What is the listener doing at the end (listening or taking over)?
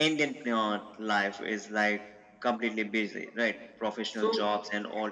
listening